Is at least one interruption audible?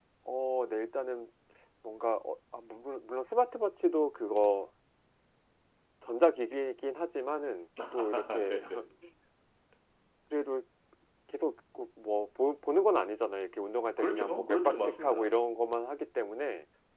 Yes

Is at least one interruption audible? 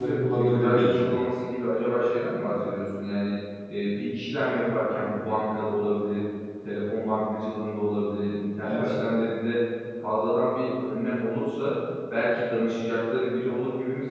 Yes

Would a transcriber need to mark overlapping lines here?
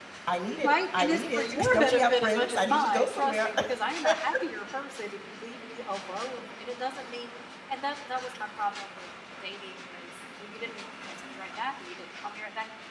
Yes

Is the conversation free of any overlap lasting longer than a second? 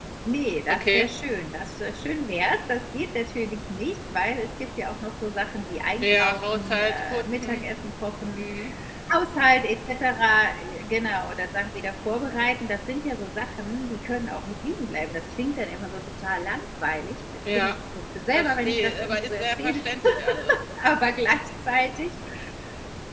No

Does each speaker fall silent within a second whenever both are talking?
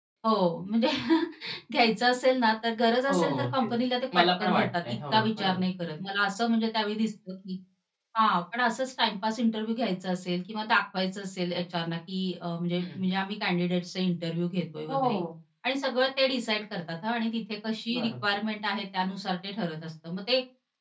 No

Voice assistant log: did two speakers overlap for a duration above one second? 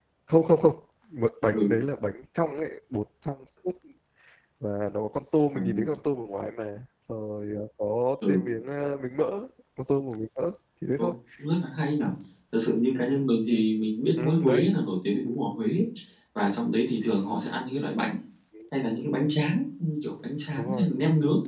No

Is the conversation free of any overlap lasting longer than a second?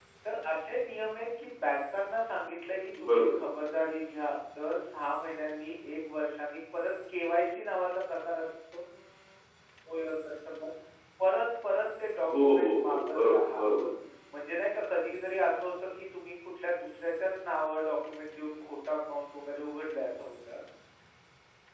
No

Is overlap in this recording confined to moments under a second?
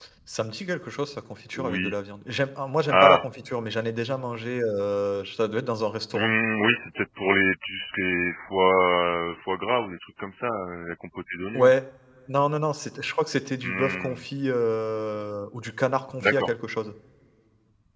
Yes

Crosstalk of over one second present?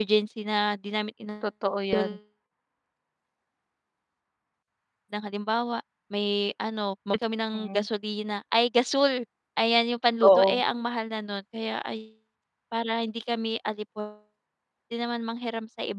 No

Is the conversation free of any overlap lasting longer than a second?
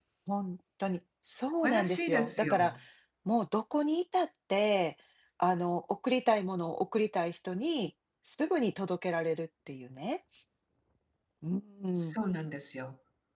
No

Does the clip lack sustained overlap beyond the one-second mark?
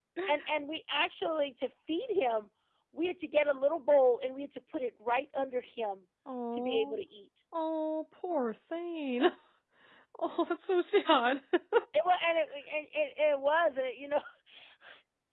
Yes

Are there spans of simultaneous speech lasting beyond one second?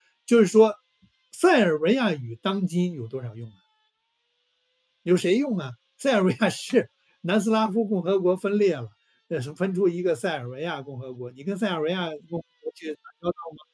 No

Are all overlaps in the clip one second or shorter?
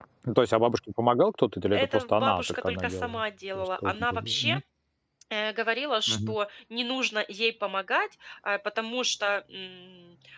No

